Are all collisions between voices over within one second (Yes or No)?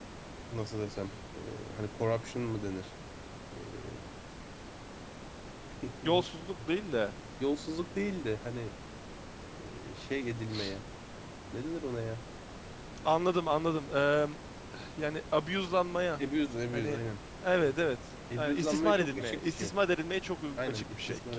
No